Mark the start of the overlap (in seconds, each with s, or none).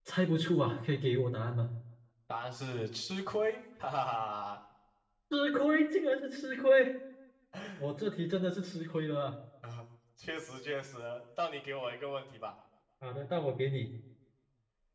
none